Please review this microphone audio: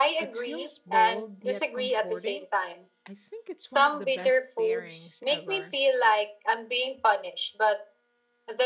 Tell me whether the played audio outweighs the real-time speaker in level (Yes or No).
Yes